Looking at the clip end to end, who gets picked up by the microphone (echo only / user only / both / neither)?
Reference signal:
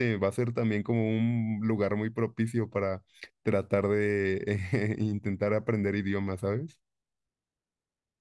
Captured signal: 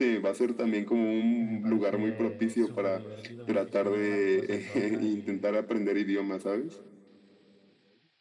both